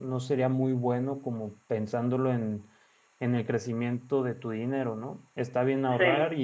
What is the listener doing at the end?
listening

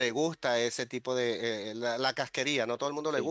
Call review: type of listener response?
listening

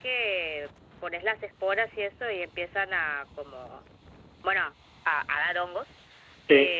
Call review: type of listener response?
listening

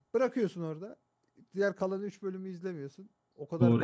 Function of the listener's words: taking over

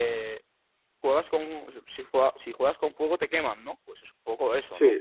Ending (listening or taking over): taking over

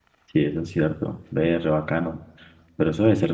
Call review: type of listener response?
listening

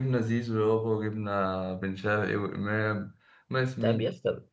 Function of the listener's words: taking over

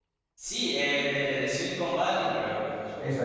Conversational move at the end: taking over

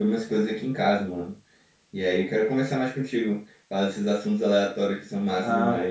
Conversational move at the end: taking over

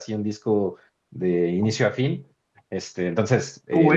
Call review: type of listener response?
taking over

